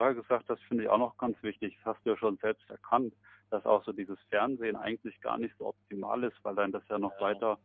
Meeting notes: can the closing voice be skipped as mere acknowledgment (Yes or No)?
Yes